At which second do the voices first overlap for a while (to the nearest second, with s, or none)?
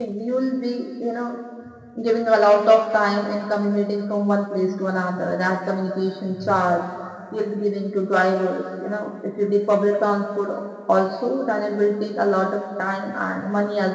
none